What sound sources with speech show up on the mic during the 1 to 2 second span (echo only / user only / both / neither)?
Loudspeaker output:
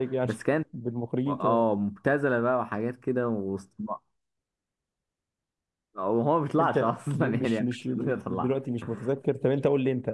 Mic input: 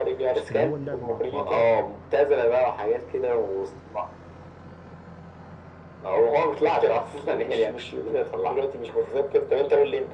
both